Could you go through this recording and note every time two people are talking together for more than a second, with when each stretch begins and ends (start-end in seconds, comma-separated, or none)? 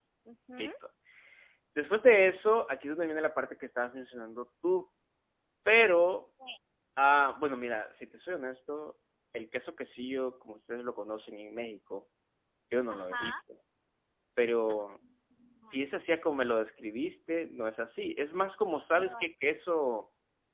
none